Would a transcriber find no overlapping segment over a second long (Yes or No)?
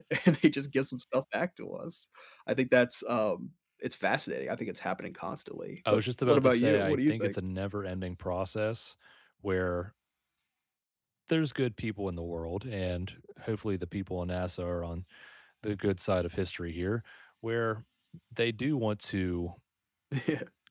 No